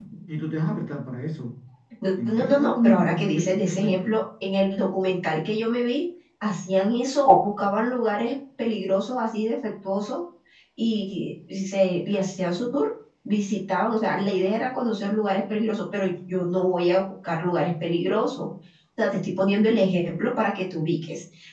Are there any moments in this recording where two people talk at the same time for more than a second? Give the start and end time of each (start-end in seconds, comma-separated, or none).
2.2-4.1